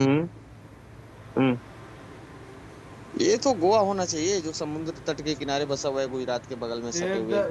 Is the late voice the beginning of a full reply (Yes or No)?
Yes